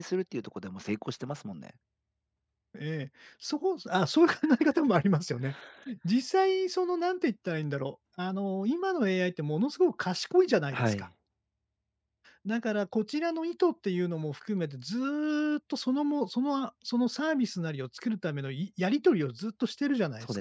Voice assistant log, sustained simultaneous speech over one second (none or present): none